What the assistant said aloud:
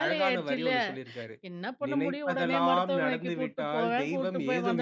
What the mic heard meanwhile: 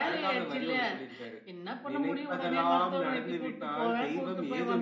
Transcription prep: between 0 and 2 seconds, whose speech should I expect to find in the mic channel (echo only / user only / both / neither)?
echo only